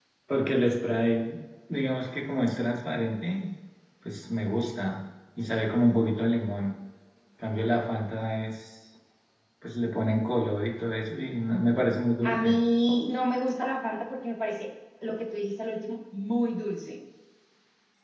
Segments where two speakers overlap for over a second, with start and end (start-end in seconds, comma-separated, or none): none